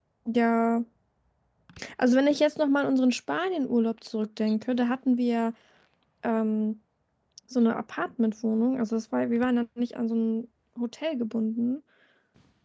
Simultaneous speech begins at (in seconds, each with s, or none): none